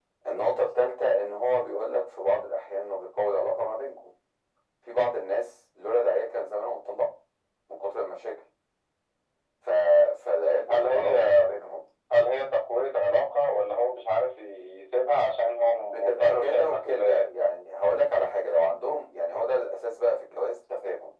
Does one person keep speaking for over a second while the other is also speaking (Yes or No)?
Yes